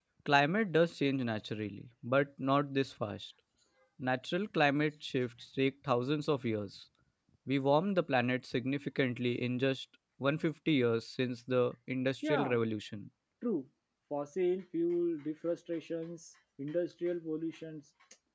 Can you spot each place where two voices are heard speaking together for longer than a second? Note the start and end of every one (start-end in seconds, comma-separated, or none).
none